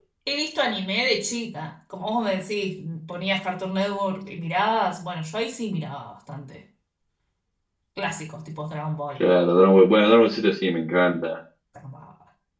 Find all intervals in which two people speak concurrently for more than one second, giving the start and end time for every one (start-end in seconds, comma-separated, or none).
none